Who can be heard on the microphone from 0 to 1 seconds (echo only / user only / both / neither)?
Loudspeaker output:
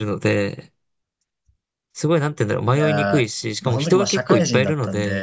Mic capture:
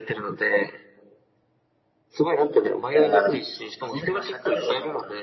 echo only